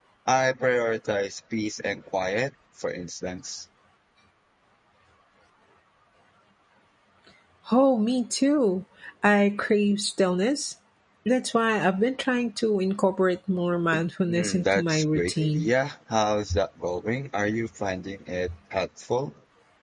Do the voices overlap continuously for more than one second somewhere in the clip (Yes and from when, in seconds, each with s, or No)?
Yes, from 14.3 s